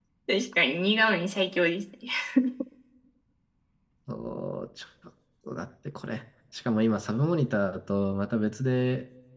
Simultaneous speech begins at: none

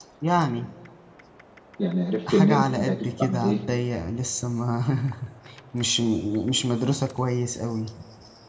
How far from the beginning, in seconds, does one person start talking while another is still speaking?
2 s

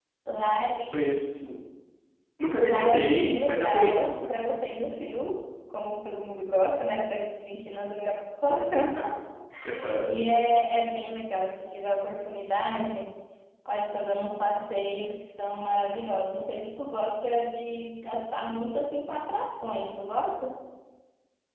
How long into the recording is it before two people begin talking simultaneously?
3 s

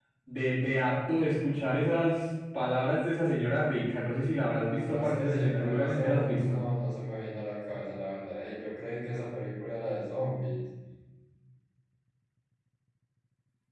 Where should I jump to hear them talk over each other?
5 s

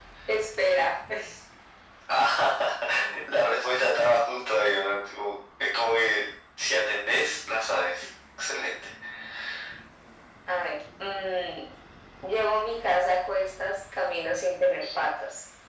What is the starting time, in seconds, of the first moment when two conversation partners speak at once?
none

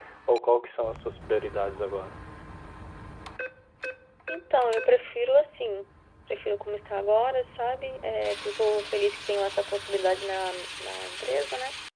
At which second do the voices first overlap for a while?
none

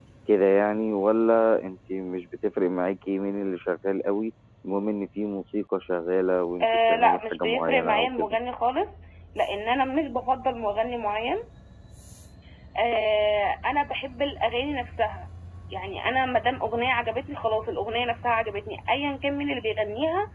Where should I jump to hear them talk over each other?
7 s

